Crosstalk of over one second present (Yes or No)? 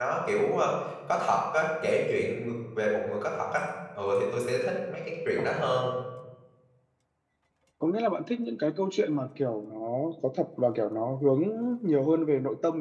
No